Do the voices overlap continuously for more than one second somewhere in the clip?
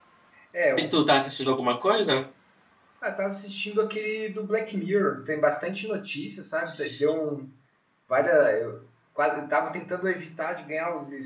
No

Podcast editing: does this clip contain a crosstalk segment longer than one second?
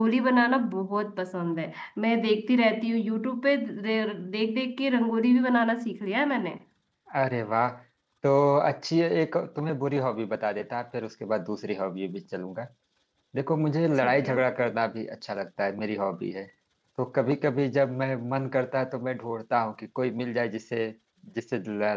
No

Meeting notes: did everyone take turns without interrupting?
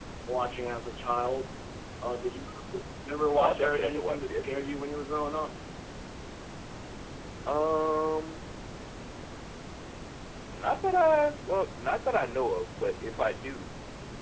No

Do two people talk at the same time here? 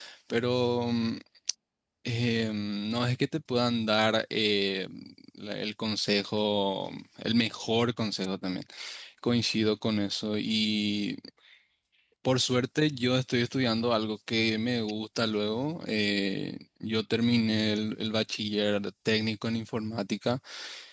No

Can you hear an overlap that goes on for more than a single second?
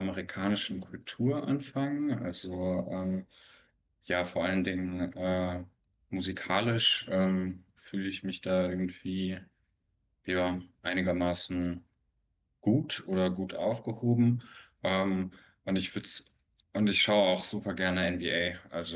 No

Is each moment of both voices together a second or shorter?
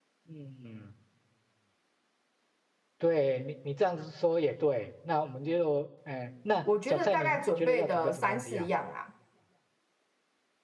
No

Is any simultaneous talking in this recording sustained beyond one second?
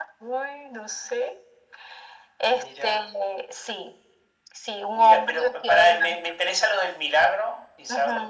Yes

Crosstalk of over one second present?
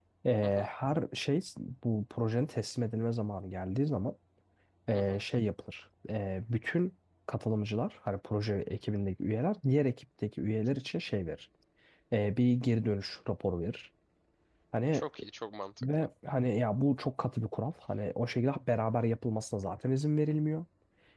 No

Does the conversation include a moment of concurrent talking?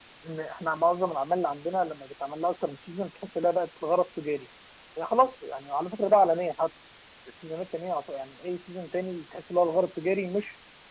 No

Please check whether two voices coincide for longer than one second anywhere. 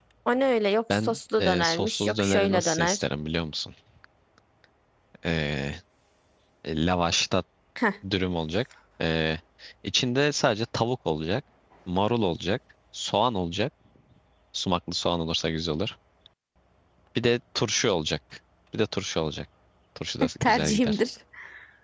Yes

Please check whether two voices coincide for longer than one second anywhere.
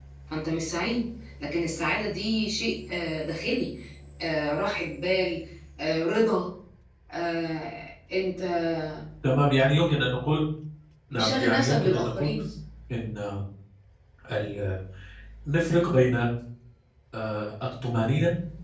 Yes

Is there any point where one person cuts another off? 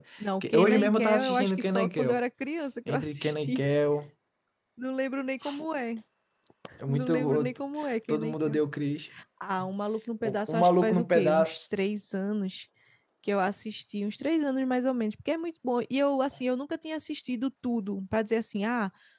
Yes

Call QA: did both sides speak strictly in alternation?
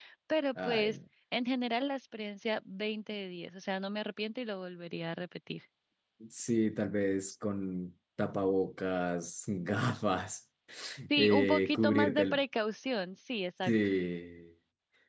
No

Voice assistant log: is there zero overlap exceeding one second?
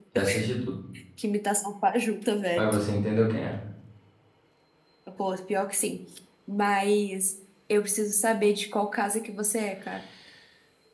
Yes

